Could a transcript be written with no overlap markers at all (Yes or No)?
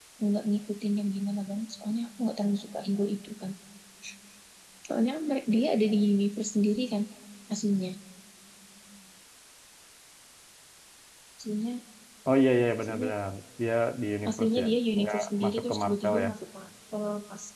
No